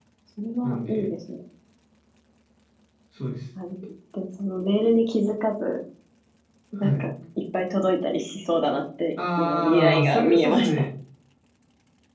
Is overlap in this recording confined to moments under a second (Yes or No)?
No